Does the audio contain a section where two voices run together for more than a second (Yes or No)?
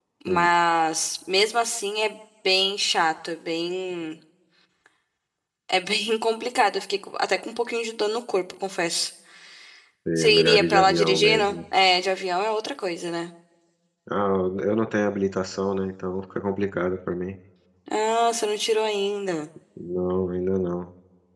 Yes